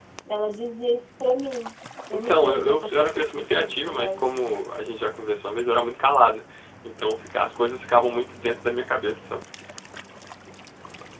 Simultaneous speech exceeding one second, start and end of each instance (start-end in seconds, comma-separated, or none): 2.1-4.2